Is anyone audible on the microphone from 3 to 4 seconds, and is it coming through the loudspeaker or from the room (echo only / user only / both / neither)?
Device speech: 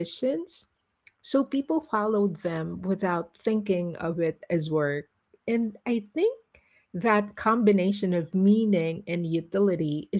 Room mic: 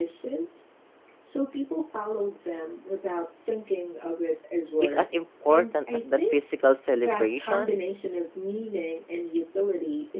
echo only